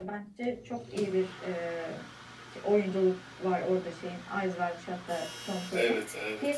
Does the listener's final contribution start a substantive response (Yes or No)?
No